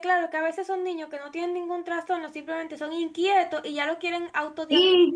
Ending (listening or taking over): taking over